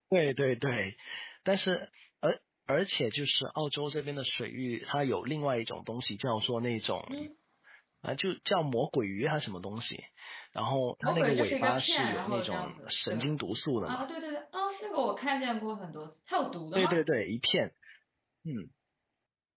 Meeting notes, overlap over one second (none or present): present